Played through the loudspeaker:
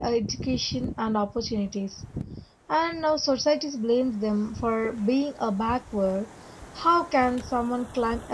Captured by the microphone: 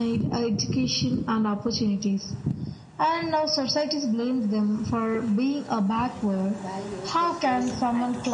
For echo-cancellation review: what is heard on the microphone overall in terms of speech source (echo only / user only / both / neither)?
both